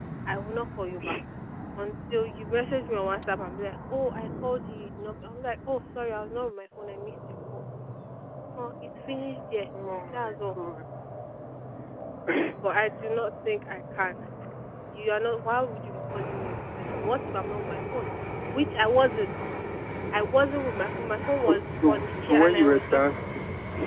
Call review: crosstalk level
present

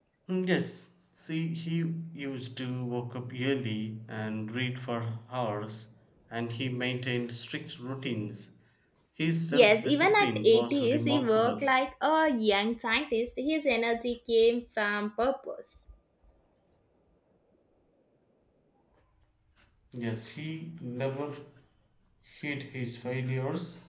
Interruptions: present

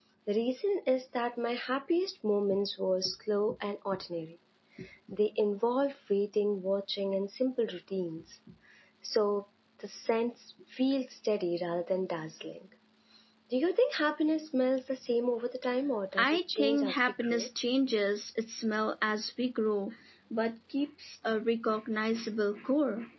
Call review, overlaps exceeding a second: present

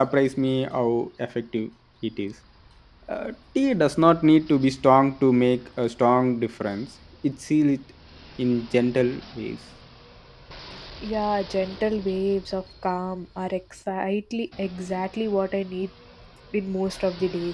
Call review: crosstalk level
none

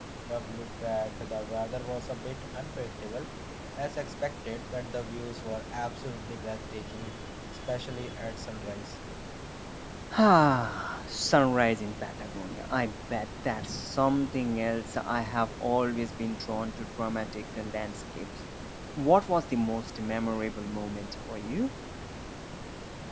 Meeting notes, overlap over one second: none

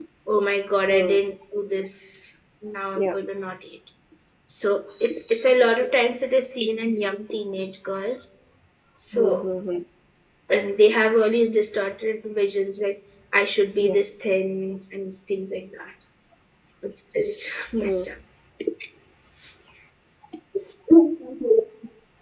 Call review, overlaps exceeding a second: none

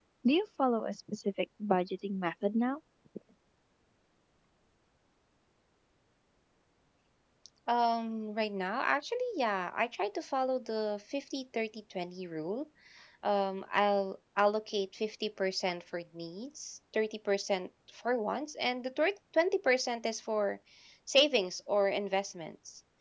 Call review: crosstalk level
none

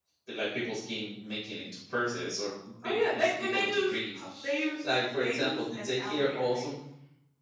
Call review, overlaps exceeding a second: present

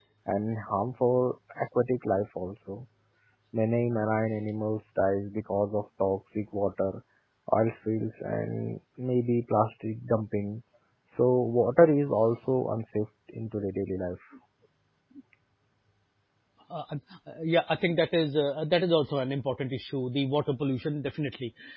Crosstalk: none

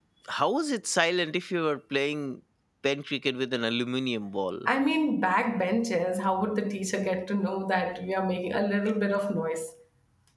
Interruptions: none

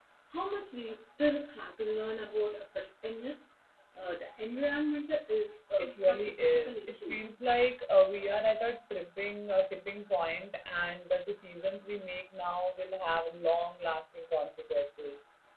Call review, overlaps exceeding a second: present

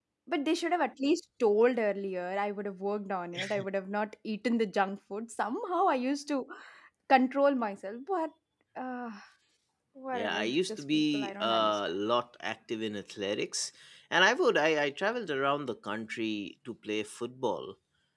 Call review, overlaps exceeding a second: present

